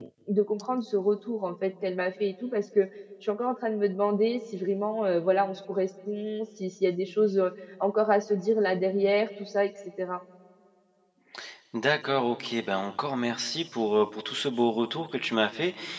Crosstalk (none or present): none